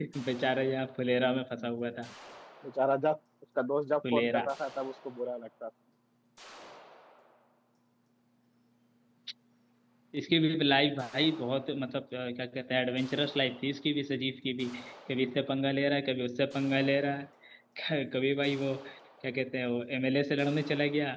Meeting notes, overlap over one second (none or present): none